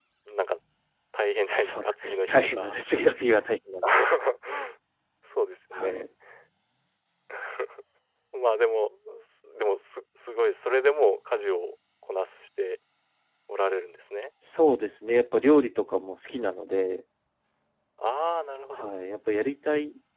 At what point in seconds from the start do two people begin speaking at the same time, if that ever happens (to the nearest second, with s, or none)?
1 s